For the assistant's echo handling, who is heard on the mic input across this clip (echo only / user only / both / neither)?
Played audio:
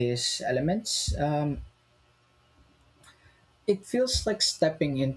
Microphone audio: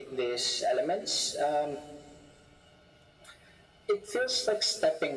echo only